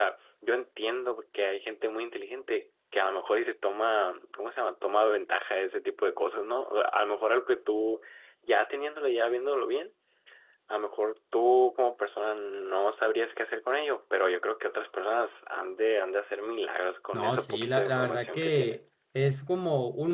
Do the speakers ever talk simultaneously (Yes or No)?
Yes